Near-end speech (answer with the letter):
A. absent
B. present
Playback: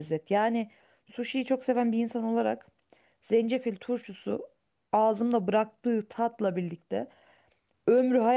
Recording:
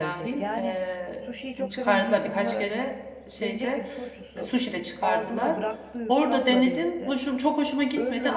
B